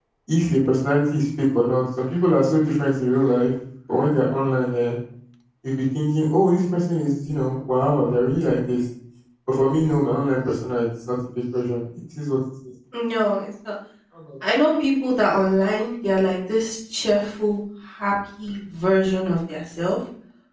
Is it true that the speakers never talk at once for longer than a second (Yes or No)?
Yes